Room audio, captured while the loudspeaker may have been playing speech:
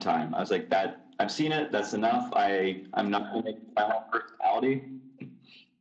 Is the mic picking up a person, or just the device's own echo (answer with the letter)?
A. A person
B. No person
B